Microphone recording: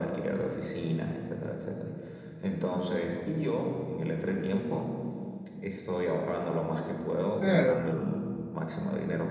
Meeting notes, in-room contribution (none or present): present